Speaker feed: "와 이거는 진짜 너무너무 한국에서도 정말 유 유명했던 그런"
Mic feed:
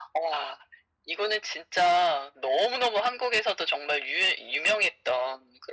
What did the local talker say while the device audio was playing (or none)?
none